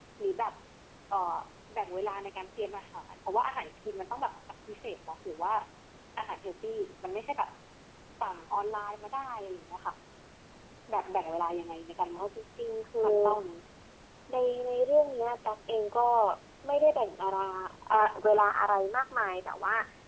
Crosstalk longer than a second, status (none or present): none